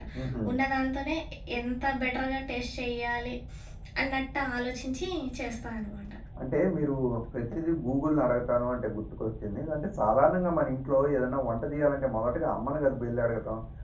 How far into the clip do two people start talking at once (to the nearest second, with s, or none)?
none